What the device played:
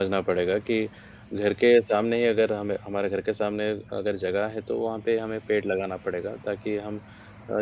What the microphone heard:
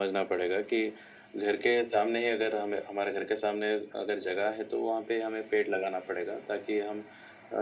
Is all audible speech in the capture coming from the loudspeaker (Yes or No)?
Yes